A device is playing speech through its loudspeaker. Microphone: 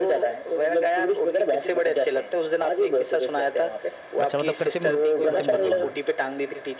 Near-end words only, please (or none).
अच्छा मतलब कृत्रिम रूप कृत्रिम गुफा बना